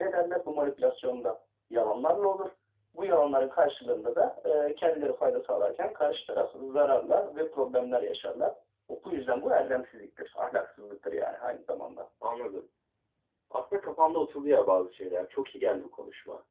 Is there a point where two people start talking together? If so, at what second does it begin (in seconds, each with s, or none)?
none